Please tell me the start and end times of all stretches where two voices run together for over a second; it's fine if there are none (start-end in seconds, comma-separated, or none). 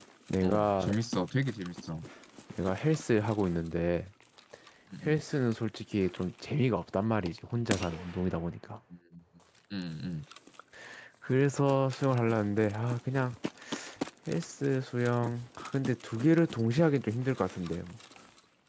none